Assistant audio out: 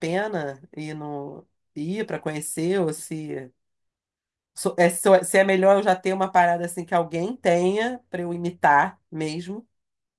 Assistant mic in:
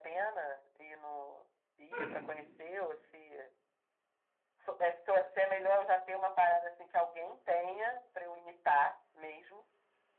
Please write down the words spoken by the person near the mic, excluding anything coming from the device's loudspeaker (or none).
Hum,